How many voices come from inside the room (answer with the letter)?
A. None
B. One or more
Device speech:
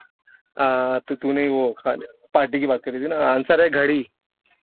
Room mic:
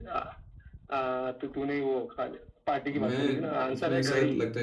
B